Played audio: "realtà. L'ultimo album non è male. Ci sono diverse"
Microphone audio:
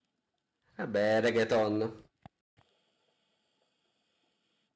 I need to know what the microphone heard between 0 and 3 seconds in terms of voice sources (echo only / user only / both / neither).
user only